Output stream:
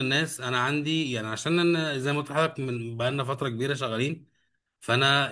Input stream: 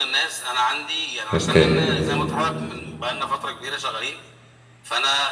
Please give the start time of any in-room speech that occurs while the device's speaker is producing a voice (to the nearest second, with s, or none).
1 s